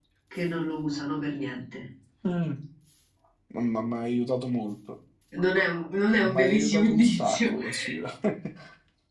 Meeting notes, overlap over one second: present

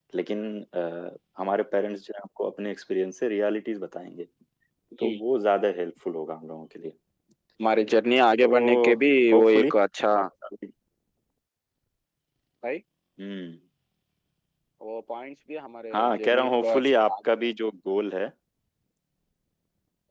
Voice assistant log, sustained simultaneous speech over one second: present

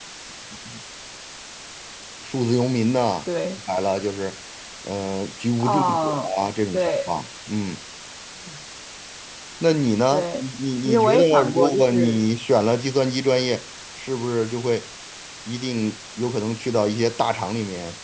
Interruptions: present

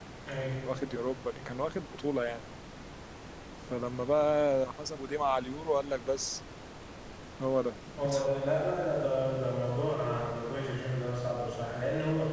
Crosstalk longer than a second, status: none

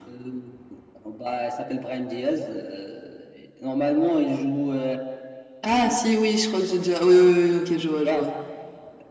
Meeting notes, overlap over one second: none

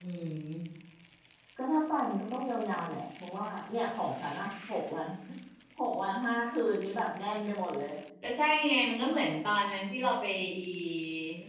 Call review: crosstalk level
none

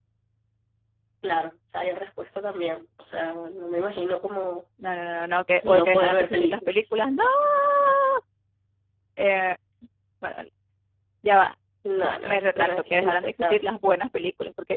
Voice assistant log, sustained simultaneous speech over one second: present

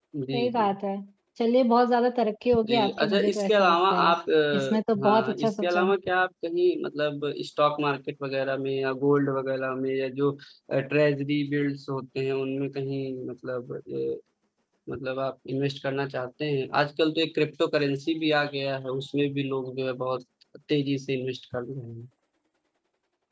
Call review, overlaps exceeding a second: present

